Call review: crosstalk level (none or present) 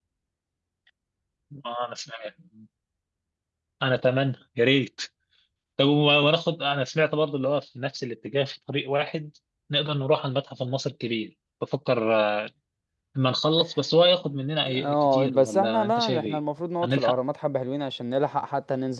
present